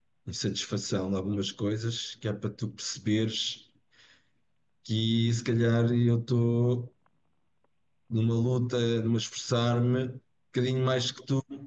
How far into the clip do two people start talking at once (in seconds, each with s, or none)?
none